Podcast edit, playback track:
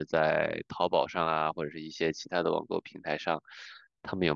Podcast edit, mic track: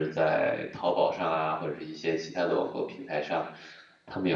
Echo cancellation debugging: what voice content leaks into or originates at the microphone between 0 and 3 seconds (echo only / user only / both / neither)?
echo only